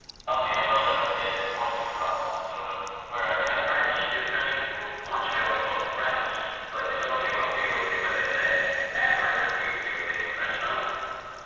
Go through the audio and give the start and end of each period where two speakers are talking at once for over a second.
none

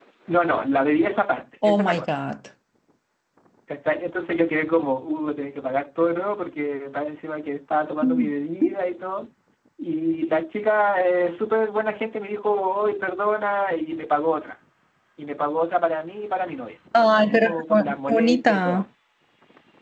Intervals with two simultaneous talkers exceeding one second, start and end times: 17.2-18.8

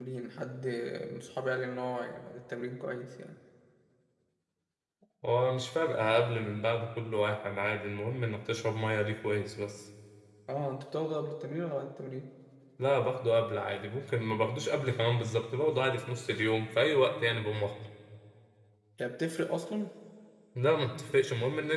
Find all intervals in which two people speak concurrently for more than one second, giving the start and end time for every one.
none

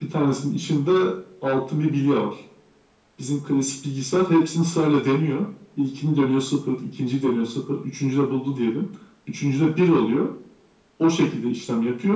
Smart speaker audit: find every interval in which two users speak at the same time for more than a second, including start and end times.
none

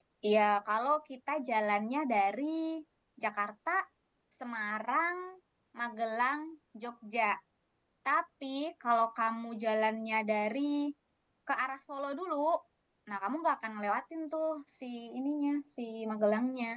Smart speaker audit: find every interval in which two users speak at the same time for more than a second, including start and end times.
none

